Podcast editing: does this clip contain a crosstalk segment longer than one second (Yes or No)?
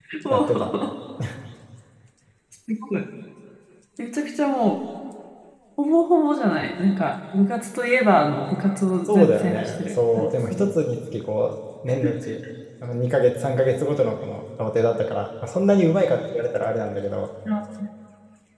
Yes